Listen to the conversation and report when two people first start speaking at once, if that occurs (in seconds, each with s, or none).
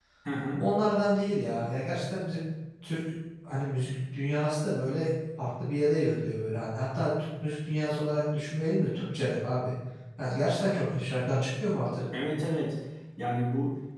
none